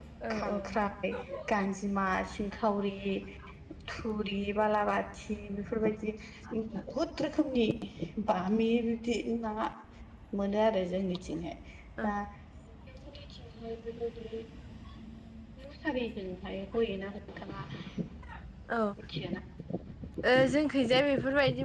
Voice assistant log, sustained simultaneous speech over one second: none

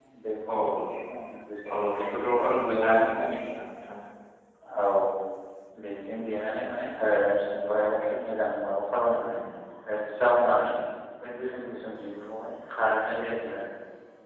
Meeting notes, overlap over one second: present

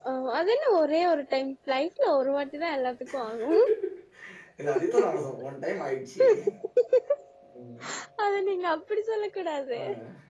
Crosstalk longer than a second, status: none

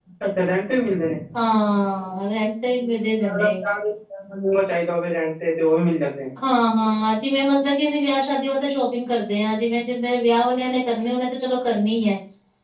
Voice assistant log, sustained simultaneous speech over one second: none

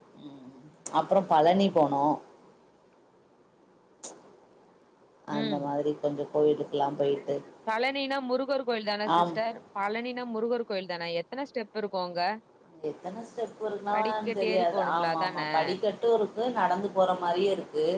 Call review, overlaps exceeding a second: present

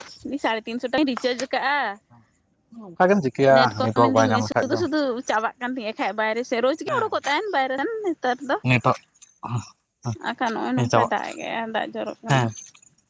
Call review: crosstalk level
present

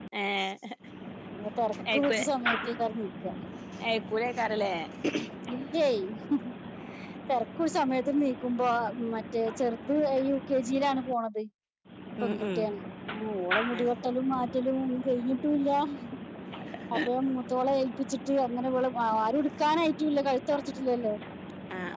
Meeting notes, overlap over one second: none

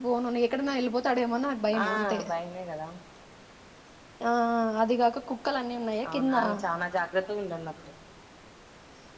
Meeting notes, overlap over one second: none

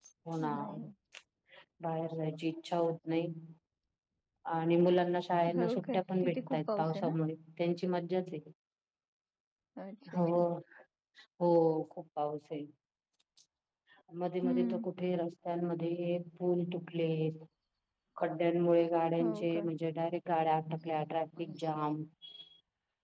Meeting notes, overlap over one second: present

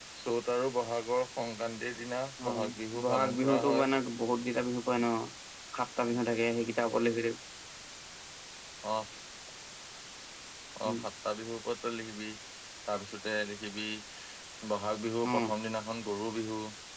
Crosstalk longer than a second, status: present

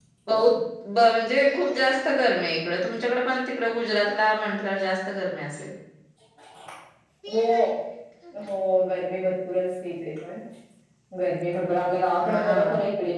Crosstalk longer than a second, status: none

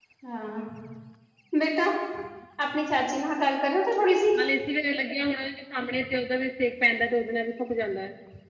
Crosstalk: none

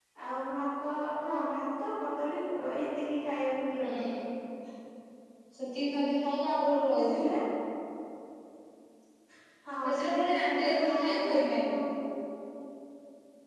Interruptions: present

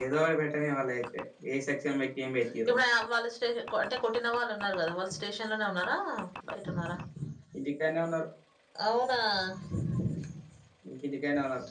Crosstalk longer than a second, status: none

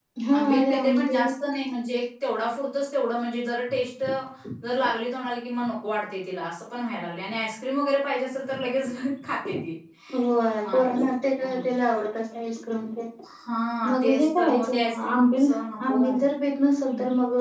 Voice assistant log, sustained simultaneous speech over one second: present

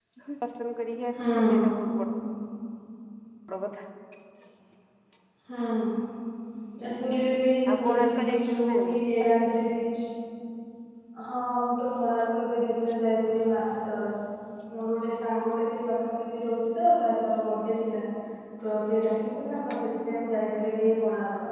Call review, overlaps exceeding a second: present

